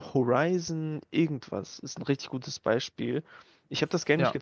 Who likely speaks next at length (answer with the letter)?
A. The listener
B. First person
B